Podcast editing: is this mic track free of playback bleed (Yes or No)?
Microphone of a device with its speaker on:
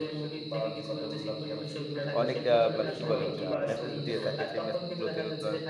No